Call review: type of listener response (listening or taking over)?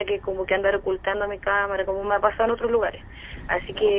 listening